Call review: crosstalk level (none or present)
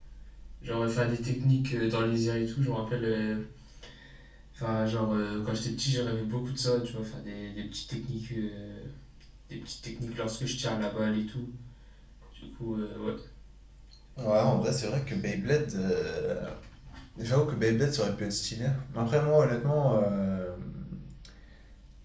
none